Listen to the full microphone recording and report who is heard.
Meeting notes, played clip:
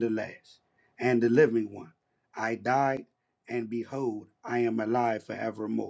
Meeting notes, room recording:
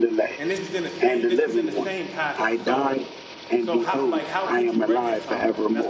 both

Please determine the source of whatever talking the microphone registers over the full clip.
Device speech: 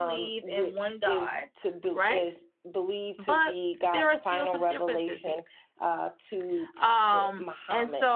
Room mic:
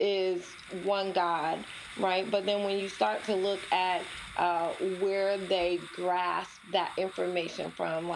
user only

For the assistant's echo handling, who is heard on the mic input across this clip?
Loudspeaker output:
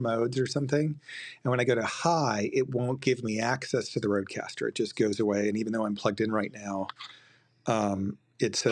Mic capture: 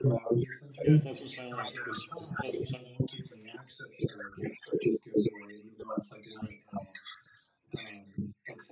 both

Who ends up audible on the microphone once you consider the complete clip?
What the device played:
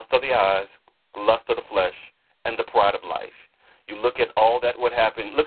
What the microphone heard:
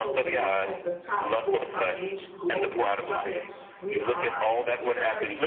both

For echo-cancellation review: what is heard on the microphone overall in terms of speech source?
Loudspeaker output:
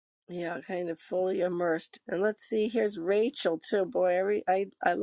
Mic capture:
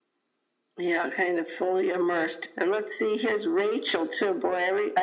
echo only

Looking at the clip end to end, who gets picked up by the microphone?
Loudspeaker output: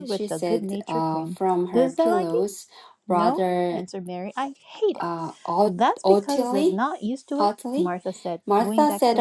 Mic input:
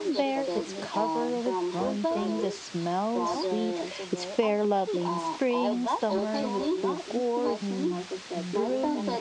both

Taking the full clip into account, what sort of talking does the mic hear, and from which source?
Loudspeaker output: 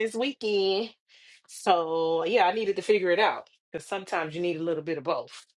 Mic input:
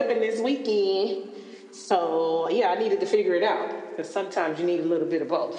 echo only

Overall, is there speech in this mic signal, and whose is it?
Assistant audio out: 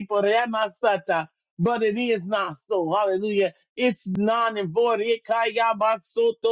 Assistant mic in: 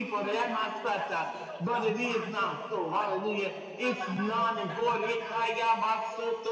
both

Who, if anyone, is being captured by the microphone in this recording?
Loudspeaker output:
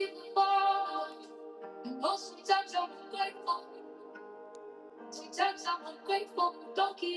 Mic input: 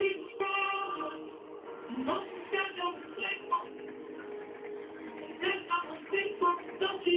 echo only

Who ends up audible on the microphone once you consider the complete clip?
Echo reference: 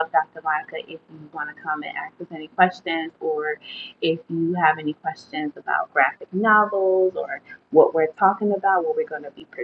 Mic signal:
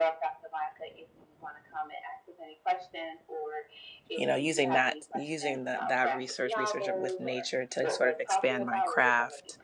both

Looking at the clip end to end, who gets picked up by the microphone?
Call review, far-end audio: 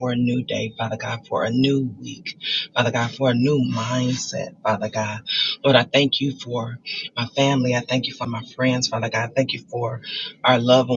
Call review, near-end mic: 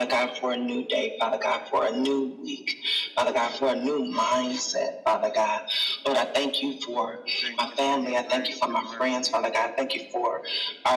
both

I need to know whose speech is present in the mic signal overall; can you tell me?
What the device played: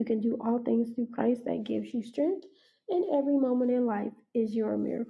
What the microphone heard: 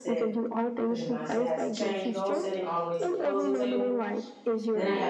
both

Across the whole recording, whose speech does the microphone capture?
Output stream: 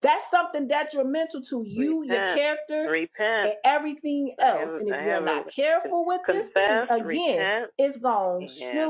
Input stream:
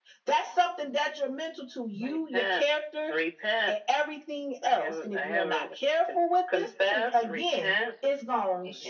echo only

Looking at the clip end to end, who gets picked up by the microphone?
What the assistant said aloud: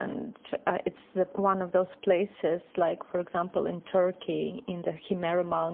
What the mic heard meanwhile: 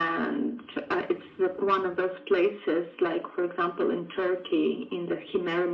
echo only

